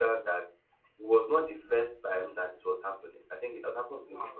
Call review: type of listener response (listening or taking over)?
listening